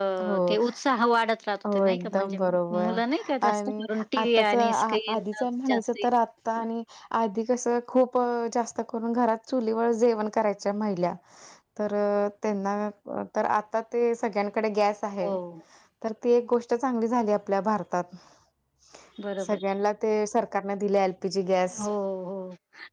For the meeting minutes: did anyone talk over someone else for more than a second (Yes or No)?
Yes